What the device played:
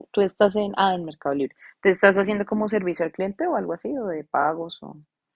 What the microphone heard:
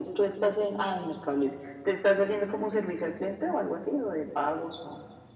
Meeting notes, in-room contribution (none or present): none